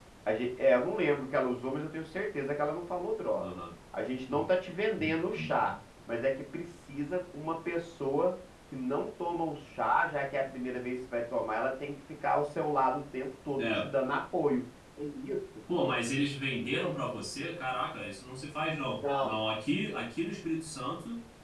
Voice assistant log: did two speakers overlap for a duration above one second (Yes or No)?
No